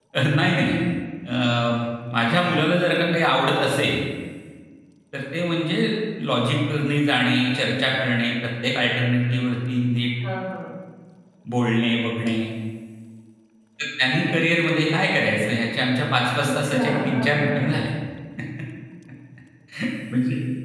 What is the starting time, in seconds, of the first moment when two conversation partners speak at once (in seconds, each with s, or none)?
16.4 s